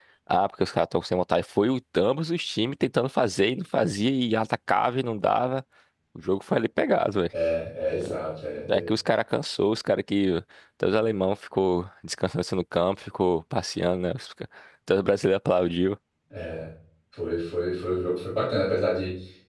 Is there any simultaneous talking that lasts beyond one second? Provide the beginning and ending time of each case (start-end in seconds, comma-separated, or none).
none